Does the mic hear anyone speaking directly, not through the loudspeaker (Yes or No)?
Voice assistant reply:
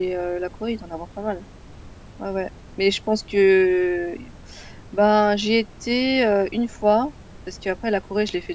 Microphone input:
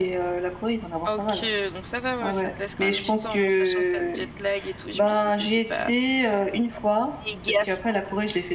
Yes